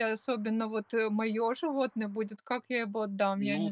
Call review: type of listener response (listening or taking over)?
taking over